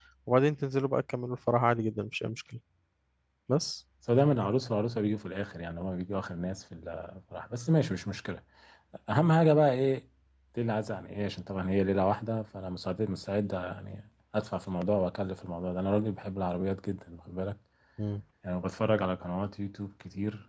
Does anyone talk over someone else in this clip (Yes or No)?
No